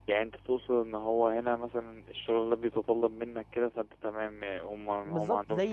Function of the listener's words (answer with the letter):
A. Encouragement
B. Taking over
B